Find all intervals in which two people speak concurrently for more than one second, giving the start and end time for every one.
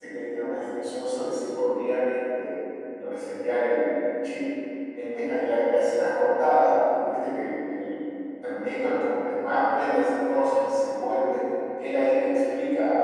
none

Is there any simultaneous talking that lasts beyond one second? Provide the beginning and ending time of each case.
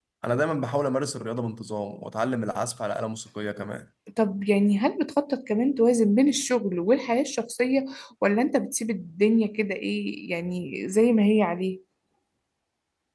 none

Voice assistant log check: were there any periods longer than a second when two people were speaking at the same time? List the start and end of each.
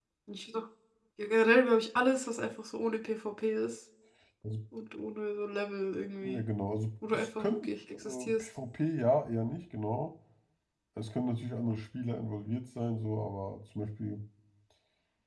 7.1-8.5

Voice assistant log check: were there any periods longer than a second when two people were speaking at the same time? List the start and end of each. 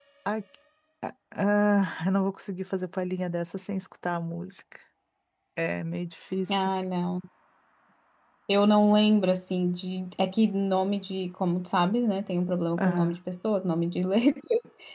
none

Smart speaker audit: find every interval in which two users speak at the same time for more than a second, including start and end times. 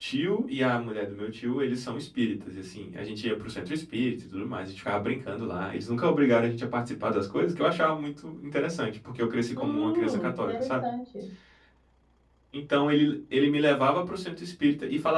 9.6-10.8

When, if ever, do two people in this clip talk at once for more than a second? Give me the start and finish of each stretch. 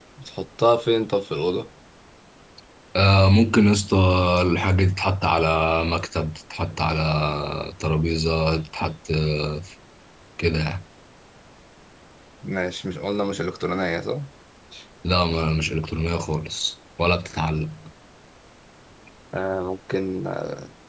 none

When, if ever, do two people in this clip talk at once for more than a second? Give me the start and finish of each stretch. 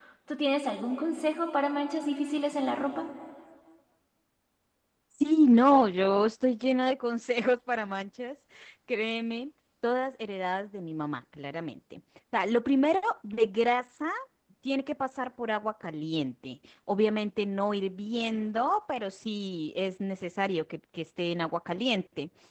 none

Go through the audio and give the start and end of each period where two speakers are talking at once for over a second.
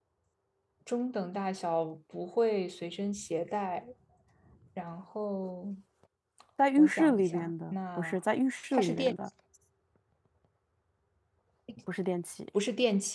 6.8-8.2

